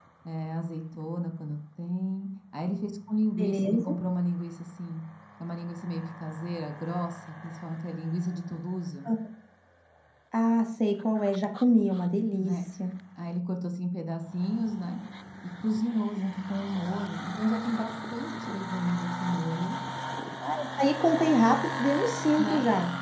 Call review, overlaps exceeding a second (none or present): none